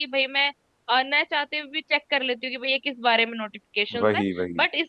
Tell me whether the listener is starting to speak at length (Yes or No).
No